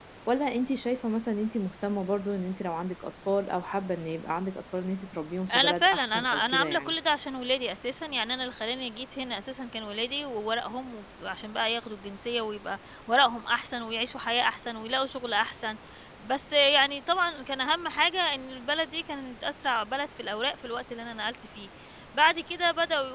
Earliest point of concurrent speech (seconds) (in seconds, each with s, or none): 5.5 s